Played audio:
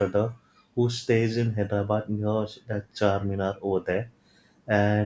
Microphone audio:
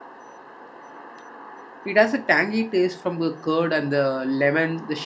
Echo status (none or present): none